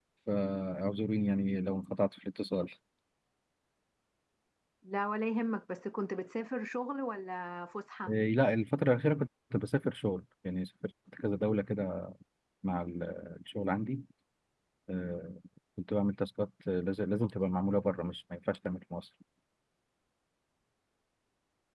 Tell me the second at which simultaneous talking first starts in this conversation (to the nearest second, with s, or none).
none